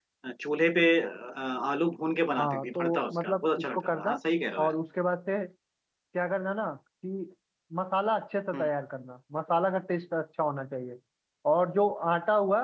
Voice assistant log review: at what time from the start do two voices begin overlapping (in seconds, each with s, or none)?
2.4 s